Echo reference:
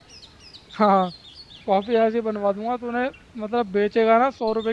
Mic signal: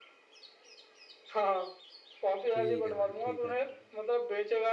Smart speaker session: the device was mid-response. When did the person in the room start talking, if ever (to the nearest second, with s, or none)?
3 s